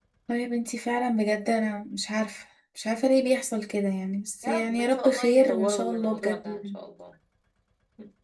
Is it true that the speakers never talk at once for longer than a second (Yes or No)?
No